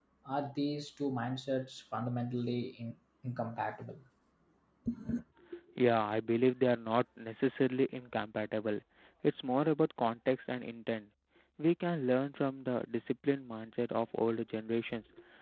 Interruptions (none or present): none